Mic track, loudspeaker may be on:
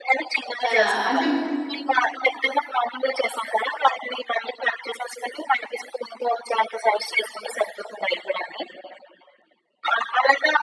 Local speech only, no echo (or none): ఆహ్, అంటే